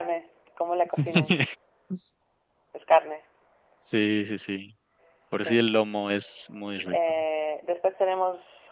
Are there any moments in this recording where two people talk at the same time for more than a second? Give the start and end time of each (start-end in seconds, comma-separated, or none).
none